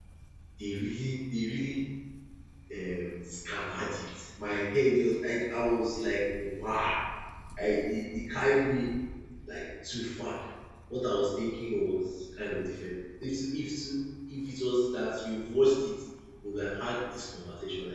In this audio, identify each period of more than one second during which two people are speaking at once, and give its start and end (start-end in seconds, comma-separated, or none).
none